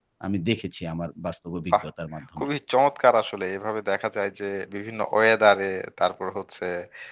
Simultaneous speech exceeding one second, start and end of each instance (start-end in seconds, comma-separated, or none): none